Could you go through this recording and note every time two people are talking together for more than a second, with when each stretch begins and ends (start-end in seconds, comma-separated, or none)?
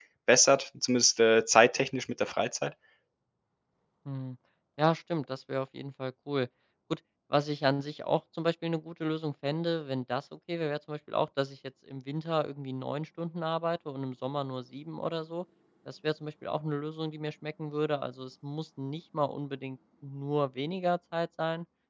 none